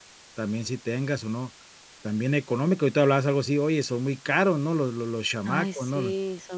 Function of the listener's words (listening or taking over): taking over